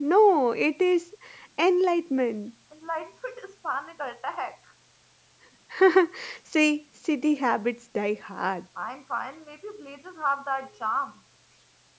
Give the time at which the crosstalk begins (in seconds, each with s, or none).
none